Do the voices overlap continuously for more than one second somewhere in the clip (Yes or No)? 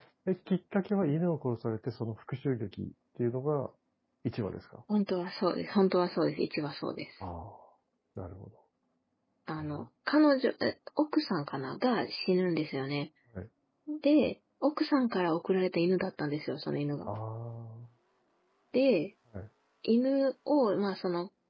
No